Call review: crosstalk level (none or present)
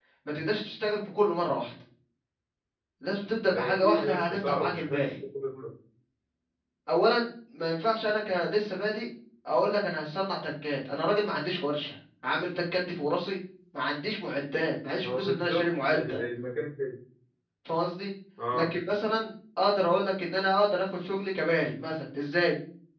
present